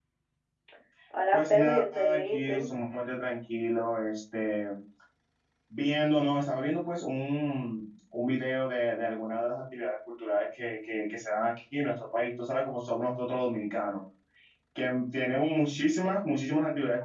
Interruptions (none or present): present